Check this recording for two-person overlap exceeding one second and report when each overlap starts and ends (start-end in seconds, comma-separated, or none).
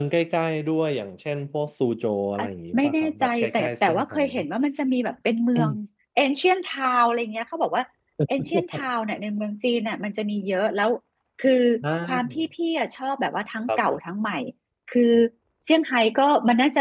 2.8-4.2